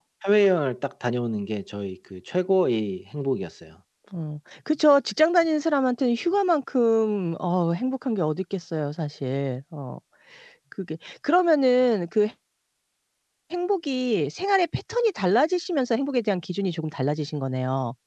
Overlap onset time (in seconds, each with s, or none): none